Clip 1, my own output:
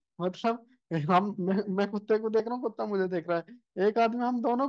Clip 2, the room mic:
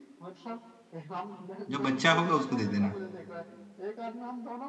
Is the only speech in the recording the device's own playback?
No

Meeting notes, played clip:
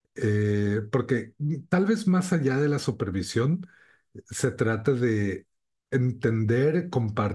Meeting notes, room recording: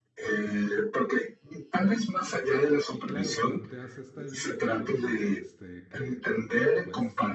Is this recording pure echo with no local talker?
No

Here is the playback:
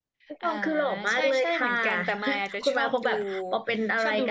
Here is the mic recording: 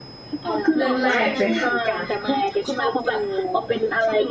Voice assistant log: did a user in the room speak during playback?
Yes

